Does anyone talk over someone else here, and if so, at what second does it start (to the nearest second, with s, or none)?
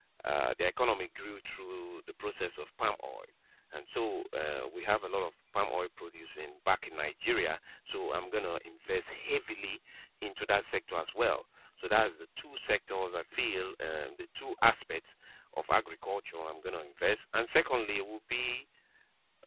none